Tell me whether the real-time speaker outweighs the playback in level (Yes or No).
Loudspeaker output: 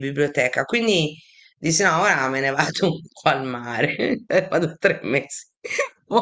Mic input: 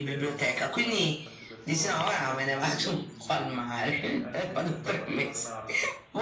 No